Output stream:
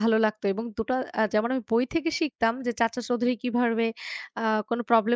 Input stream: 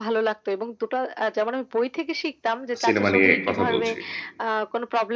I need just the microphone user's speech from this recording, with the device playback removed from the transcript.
সিনেমা নিয়ে কথা বলছি।

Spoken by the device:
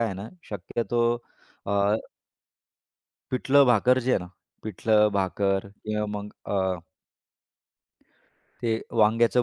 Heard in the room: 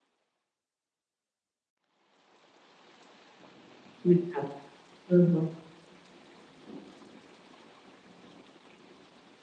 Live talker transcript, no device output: अच्छा. हां, हां.

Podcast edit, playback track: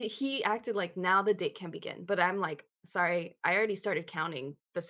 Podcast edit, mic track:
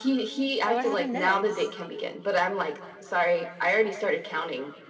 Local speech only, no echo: So what happened next?

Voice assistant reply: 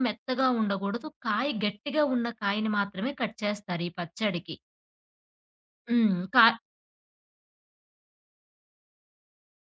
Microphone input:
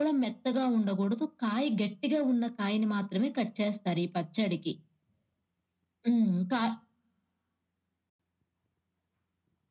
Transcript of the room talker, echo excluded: none

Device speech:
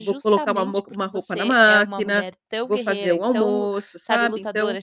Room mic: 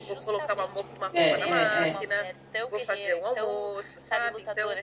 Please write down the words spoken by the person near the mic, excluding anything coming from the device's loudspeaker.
É, é, é.

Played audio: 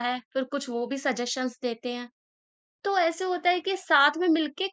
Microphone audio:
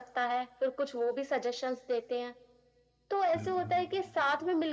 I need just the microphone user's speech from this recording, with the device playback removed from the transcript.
बिल्कुल,

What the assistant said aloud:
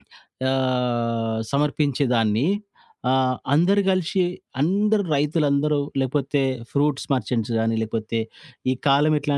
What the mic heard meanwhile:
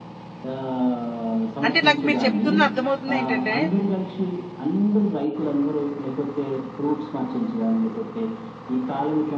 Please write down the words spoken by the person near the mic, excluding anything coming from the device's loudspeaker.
అంటే నాకు మీరు చెప్తుంది అర్థమవుతుంది ఏంటంటే,

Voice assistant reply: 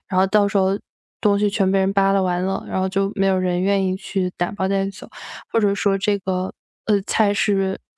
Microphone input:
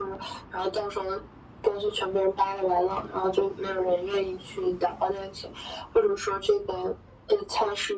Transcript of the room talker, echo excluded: none

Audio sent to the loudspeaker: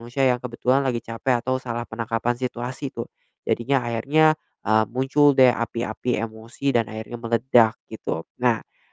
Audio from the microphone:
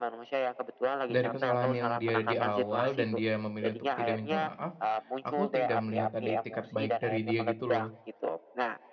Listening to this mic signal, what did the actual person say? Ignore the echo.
dari kesalahan yang dia di awal dan dia memilih untuk tidak minta maaf, aku tidak melihat ada itikad baik dari dia gitu loh.

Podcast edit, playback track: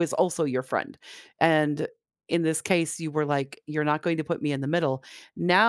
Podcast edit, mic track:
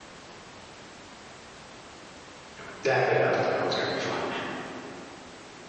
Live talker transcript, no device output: you know dap it out. You know, it's going to be fine.

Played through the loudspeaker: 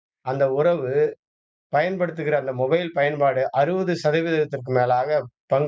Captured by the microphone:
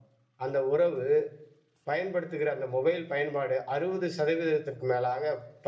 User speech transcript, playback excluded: none

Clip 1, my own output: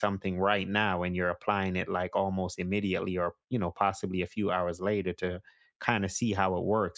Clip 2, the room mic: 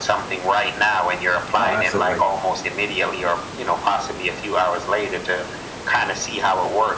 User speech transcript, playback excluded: Oh, absolutely.

